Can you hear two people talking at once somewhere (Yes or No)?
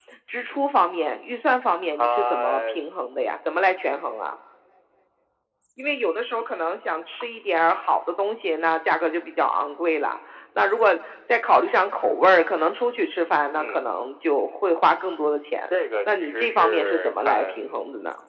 Yes